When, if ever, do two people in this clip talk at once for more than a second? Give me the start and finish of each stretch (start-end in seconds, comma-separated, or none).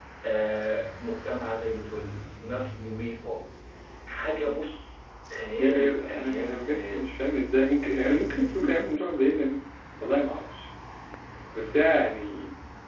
5.6-7.1